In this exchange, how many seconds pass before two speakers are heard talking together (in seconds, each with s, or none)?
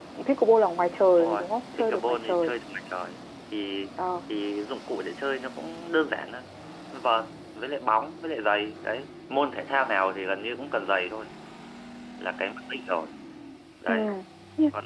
1.2 s